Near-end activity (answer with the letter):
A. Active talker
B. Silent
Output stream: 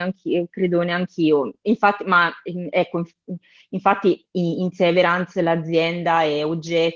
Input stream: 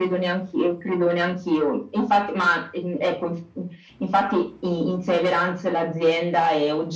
B